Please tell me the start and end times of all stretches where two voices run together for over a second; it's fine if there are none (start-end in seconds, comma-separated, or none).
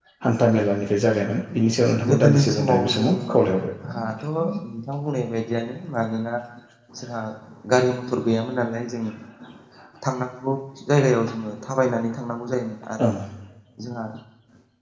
2.1-3.6